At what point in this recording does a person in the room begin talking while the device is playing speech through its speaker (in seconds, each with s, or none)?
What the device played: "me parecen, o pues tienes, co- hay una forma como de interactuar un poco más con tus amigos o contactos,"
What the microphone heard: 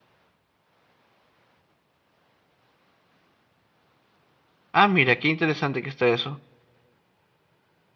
4.7 s